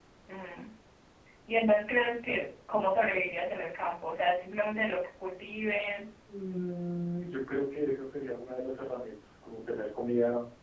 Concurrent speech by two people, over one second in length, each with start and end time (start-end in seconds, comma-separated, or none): none